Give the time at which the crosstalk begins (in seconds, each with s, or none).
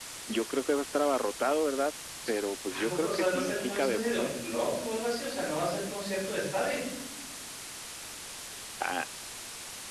2.7 s